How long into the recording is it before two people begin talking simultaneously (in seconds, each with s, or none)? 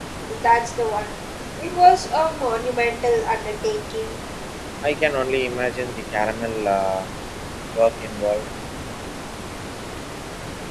none